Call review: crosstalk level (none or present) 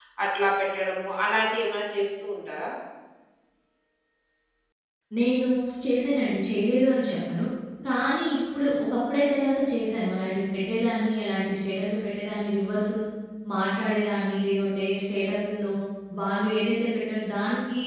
none